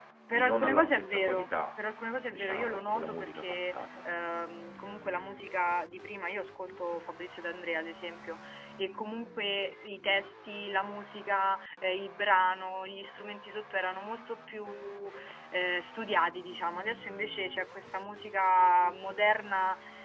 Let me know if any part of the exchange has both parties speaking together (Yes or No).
Yes